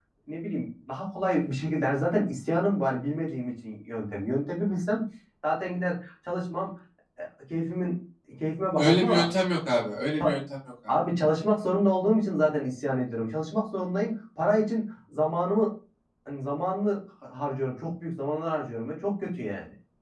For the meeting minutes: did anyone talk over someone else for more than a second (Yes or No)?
No